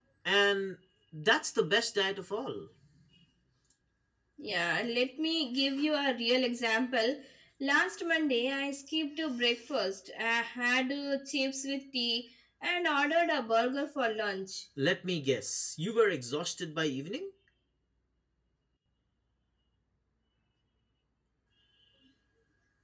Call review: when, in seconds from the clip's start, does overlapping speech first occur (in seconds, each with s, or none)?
none